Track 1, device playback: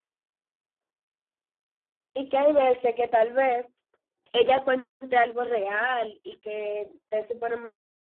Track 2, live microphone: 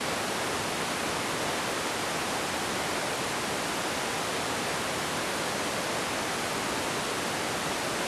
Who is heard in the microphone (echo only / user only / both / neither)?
neither